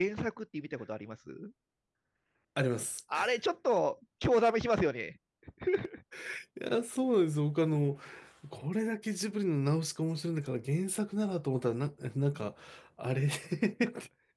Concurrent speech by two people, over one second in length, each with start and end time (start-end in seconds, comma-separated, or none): none